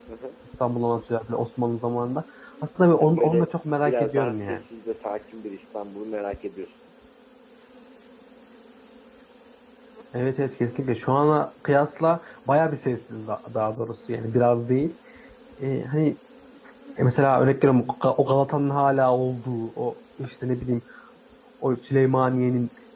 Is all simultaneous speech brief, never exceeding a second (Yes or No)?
No